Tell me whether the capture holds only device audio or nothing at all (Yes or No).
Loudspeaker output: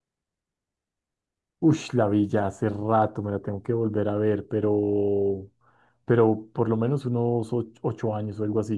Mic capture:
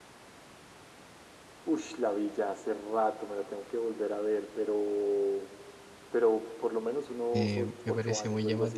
No